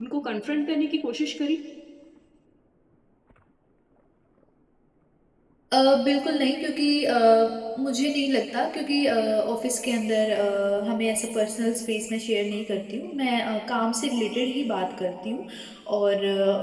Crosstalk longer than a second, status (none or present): none